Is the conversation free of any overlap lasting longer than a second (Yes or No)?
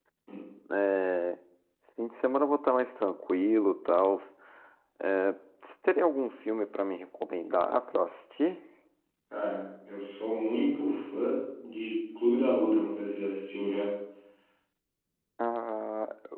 Yes